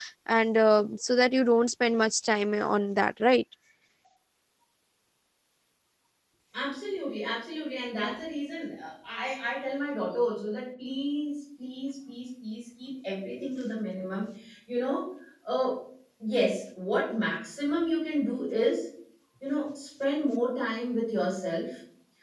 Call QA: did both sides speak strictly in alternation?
Yes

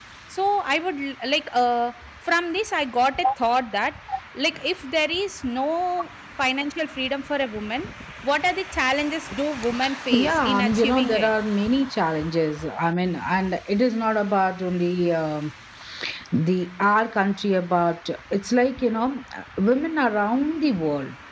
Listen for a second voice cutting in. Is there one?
Yes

